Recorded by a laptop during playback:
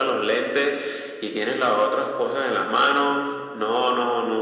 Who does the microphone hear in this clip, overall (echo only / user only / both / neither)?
echo only